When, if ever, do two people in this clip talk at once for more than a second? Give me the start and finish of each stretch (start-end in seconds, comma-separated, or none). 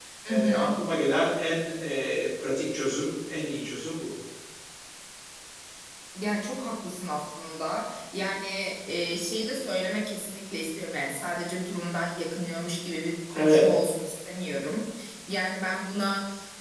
none